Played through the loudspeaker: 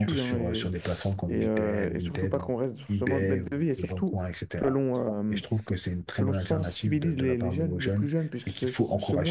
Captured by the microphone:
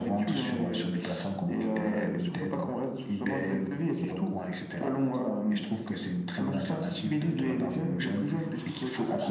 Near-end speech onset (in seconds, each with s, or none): none